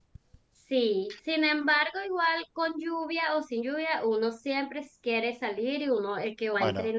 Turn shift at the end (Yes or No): No